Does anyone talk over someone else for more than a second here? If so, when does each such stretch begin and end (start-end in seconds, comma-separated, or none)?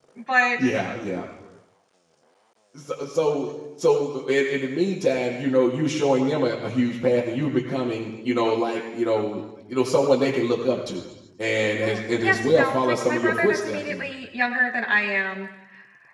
11.8-14.1